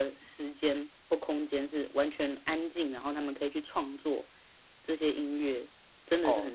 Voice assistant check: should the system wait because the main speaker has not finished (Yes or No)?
No